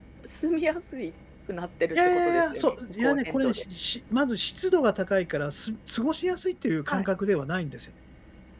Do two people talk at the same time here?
Yes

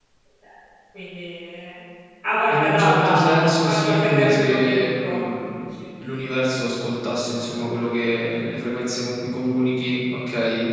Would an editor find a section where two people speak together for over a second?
Yes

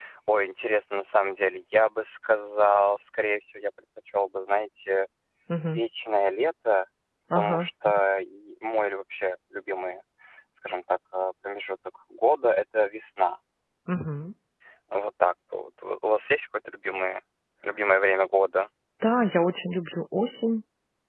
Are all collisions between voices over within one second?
Yes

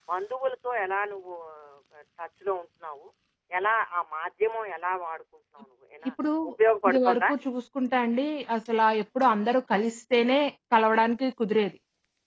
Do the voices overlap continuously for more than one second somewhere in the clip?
No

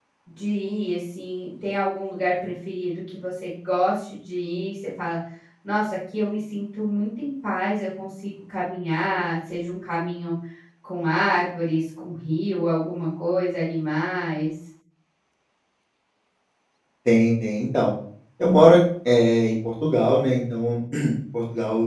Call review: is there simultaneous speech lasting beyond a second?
No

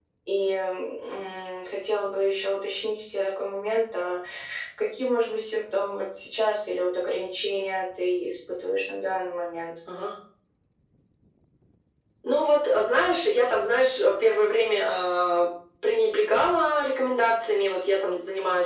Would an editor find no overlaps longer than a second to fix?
Yes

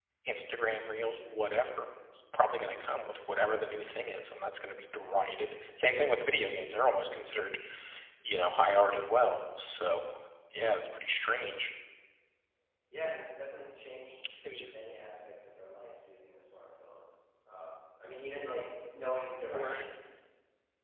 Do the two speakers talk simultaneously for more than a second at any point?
No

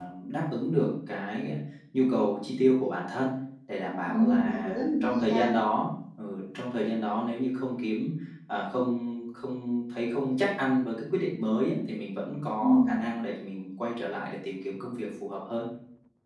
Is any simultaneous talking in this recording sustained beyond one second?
Yes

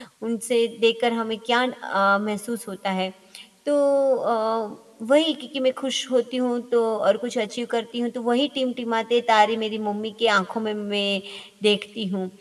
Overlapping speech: No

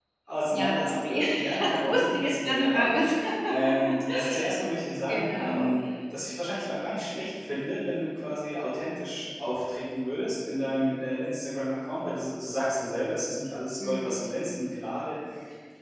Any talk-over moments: Yes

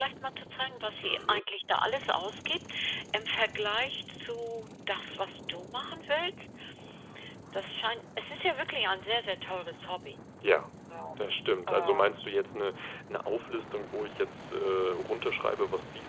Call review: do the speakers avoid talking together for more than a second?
Yes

